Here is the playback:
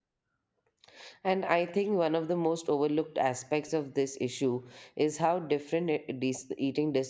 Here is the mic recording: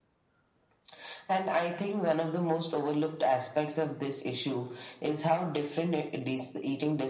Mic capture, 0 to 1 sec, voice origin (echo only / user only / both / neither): neither